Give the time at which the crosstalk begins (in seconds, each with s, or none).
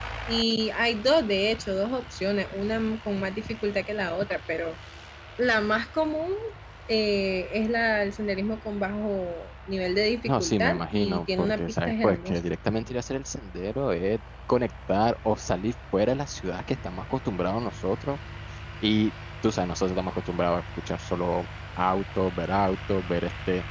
10.3 s